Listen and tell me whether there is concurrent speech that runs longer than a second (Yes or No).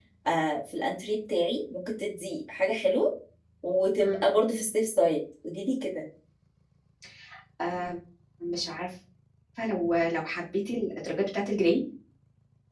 No